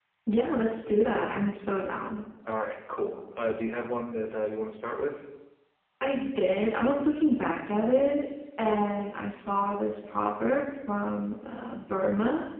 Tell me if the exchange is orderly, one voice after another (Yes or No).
Yes